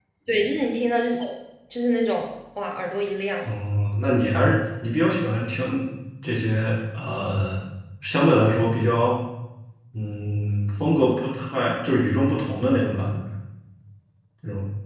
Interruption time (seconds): none

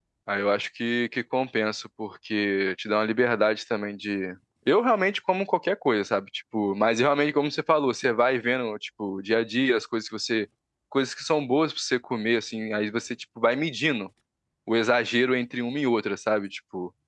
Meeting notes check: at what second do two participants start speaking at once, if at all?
none

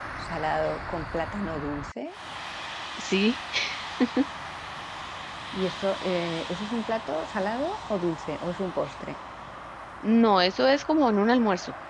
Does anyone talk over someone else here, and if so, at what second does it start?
none

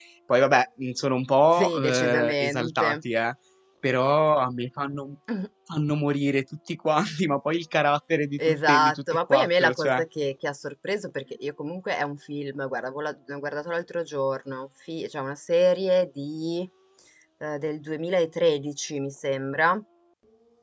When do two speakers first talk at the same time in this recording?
1.5 s

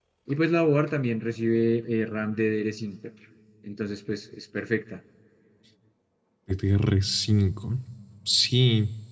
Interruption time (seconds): none

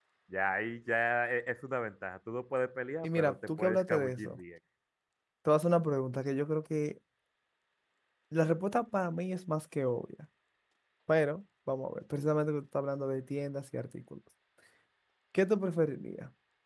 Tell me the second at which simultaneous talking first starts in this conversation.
3.0 s

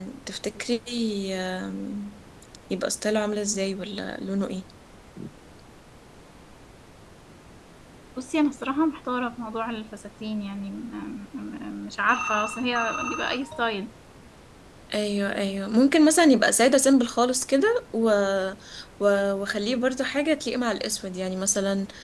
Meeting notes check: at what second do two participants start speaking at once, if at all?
none

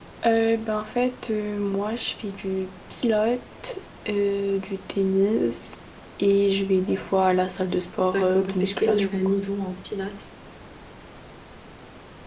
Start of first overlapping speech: 8.1 s

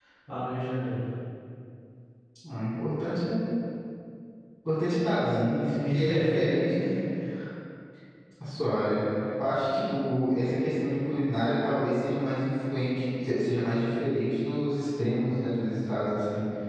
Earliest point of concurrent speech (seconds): 5.2 s

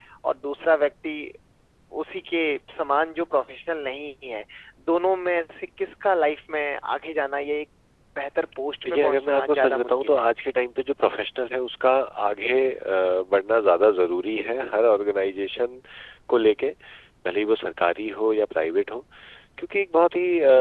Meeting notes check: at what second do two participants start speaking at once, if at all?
8.8 s

